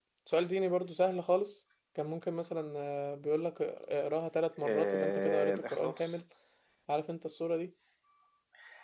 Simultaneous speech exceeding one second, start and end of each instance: 4.6-6.1

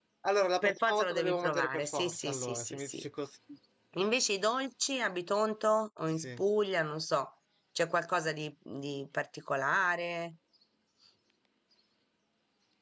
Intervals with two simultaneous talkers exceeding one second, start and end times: 0.6-3.0

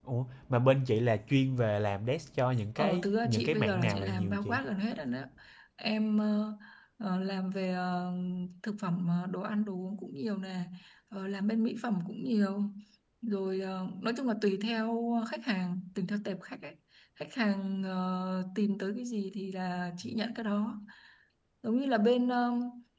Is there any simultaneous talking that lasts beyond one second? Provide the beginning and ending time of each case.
2.8-4.6

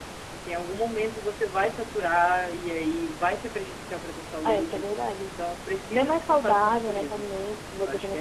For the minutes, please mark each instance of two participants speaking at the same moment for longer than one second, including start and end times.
5.9-7.3

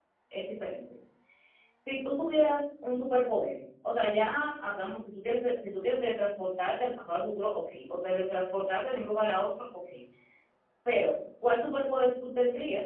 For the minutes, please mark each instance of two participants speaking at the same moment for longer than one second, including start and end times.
none

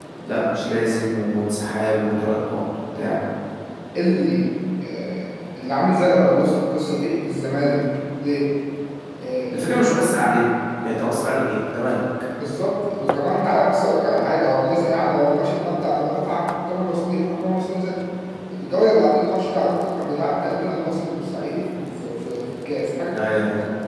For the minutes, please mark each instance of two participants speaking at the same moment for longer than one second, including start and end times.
none

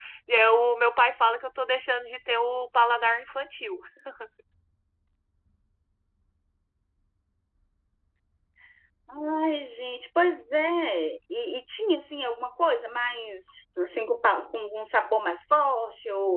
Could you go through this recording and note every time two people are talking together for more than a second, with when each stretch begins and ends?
none

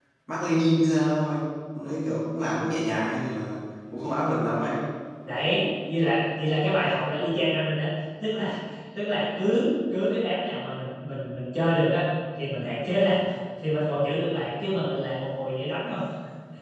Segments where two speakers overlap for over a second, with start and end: none

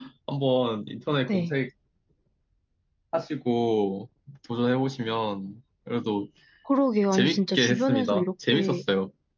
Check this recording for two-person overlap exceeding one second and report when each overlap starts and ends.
7.1-8.8

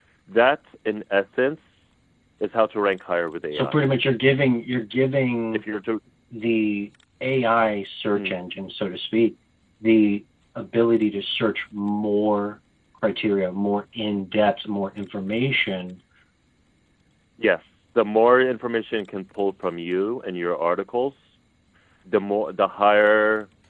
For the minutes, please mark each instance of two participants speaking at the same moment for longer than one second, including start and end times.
none

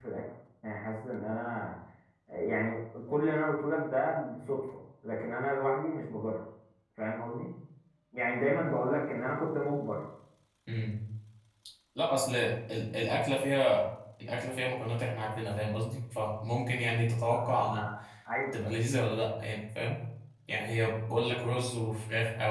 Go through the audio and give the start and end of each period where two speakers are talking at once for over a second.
none

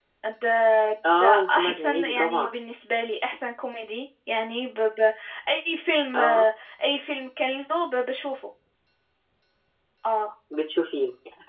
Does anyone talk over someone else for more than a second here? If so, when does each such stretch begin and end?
1.2-2.5

